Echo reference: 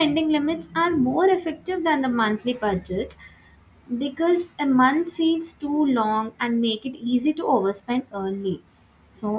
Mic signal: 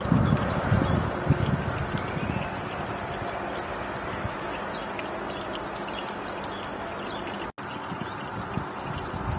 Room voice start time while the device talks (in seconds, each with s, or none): none